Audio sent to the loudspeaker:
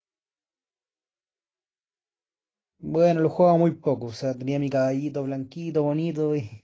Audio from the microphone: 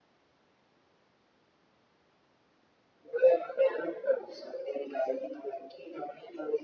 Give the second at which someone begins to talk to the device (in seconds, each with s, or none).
none